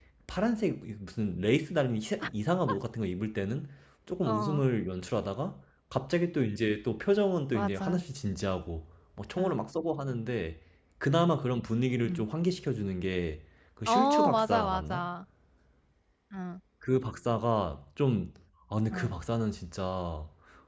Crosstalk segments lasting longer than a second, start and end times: 13.9-15.1

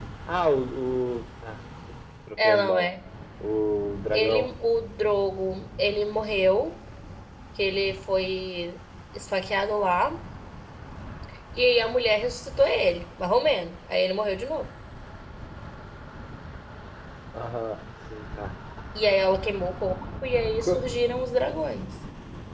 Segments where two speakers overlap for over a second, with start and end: none

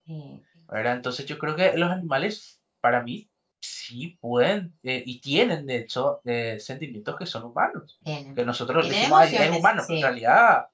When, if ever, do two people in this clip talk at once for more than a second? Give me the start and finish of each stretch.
8.8-10.1

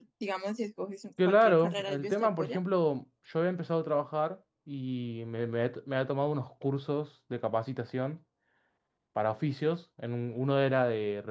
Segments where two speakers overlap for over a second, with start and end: 1.2-2.6

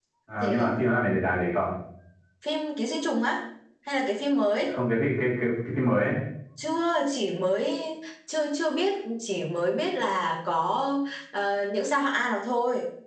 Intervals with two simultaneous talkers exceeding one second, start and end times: none

